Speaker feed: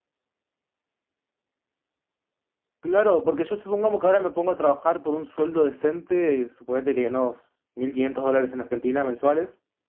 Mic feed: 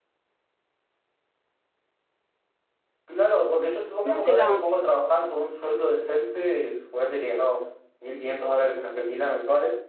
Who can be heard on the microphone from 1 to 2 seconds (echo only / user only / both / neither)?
neither